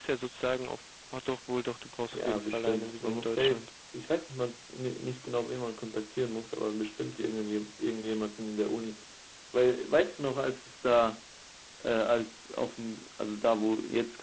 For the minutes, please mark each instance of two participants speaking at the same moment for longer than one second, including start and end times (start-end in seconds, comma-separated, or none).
2.1-3.6